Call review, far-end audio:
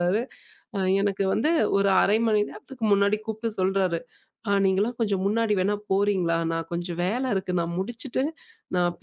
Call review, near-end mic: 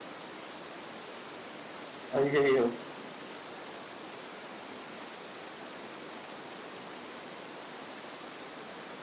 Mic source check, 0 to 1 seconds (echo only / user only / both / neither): neither